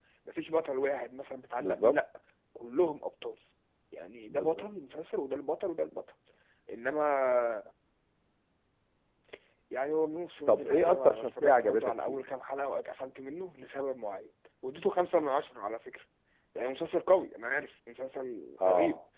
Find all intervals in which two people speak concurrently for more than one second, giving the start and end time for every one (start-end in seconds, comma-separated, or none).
10.5-12.3